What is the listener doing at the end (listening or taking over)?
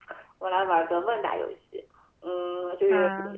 listening